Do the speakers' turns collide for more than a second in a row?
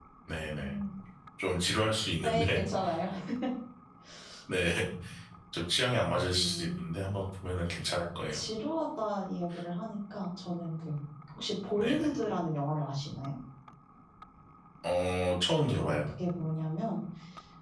No

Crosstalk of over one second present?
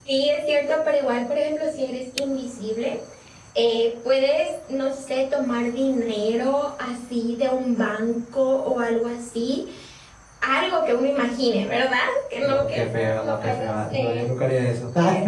Yes, from 12.4 s

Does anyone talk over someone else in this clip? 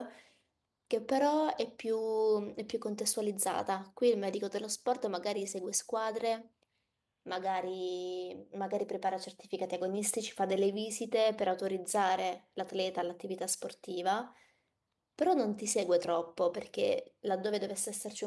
No

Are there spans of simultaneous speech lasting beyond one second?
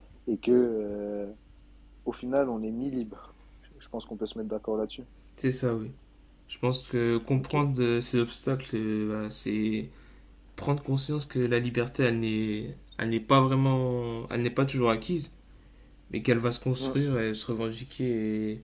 No

